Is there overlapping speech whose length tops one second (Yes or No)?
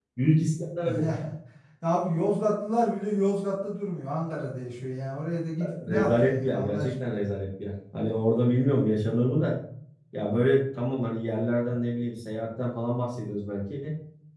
Yes